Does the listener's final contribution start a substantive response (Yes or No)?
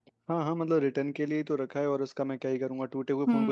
Yes